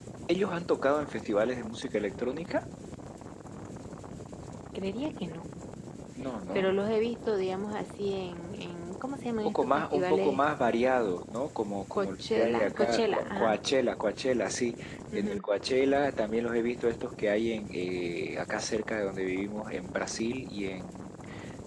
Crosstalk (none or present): present